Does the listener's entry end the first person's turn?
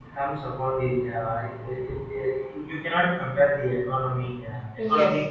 No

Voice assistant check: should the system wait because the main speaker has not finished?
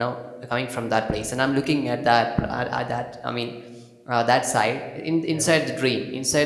Yes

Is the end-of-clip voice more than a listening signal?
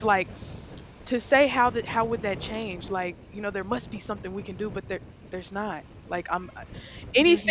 No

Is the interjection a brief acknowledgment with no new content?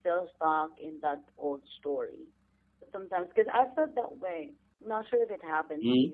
Yes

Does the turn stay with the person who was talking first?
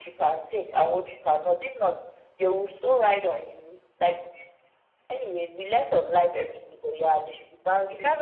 No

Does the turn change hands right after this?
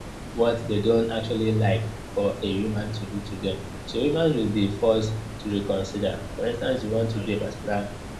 No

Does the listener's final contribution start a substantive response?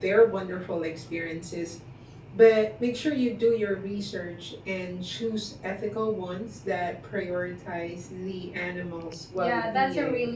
Yes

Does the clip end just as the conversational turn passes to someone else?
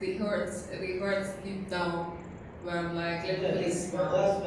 Yes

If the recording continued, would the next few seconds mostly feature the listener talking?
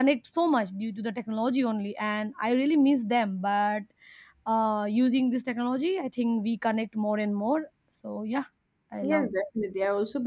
Yes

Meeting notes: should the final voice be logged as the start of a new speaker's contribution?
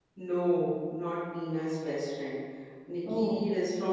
No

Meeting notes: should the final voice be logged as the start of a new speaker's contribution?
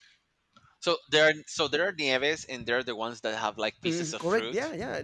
Yes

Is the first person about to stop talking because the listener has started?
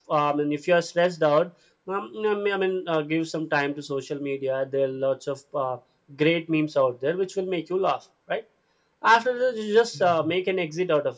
No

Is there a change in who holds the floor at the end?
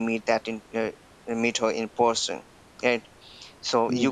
No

